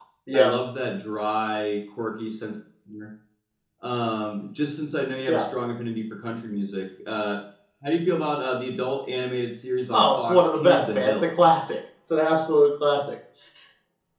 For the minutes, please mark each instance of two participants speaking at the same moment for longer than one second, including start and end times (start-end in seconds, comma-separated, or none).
9.9-11.3